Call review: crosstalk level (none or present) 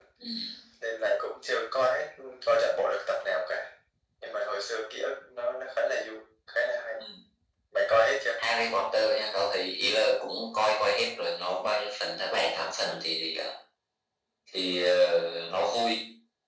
none